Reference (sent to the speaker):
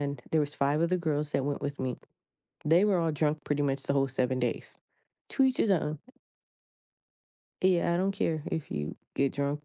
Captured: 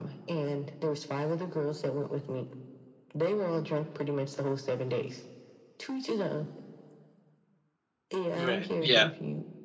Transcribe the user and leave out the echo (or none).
Right. Yeah.